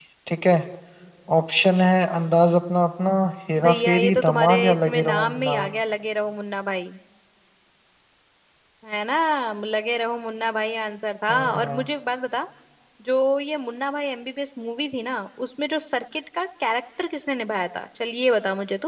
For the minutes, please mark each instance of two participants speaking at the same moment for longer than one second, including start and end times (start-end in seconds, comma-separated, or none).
3.6-5.8